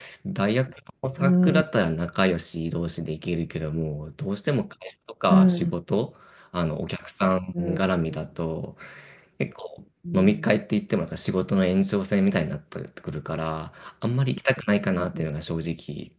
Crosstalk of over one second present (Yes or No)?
No